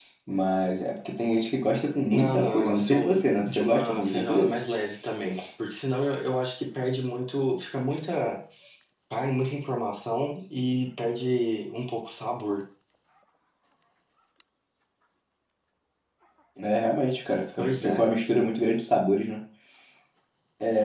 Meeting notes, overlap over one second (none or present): present